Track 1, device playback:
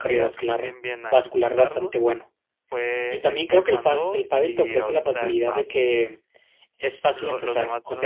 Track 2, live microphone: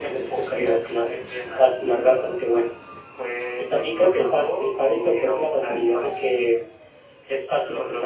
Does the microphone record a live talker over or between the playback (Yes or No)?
No